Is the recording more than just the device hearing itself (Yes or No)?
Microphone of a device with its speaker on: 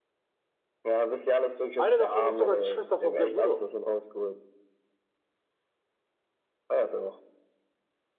Yes